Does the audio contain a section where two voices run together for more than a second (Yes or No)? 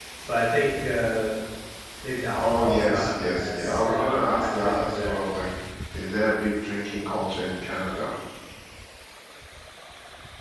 Yes